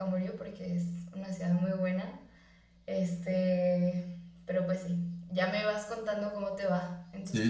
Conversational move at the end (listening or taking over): taking over